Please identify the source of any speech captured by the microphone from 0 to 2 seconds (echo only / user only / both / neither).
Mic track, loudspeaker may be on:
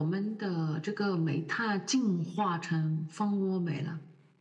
echo only